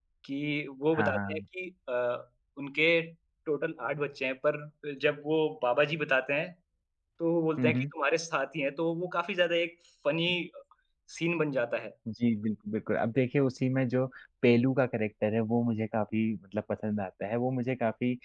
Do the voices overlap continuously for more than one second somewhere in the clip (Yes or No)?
No